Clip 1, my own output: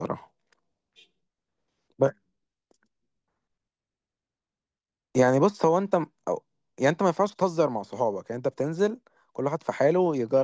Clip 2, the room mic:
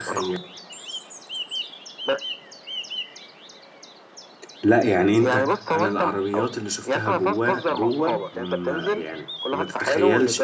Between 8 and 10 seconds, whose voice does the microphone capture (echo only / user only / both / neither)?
both